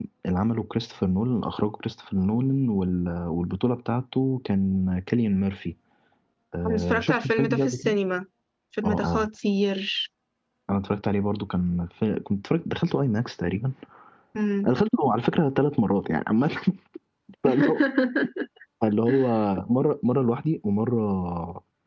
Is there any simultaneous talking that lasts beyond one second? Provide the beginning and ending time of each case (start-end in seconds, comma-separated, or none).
6.7-8.0